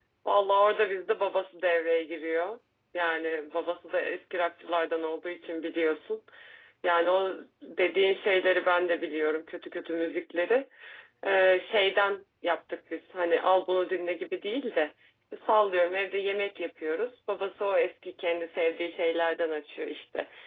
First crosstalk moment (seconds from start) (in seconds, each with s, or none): none